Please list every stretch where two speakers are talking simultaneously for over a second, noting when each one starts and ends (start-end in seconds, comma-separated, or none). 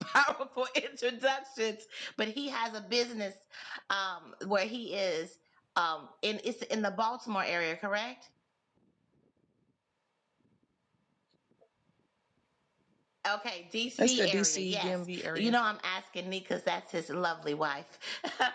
14.0-15.5